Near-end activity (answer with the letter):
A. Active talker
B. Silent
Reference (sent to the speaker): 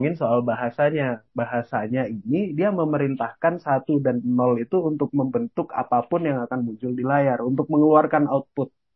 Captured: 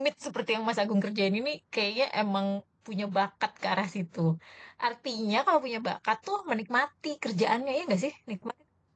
A